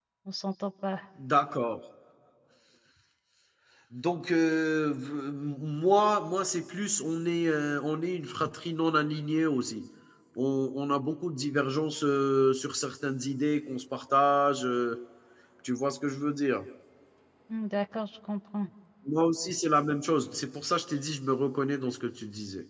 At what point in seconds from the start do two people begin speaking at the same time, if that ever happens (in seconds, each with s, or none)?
none